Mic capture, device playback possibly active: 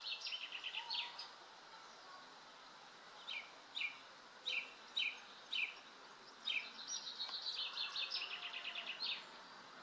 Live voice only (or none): none